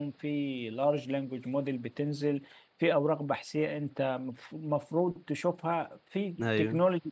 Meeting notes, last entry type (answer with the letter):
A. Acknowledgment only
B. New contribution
A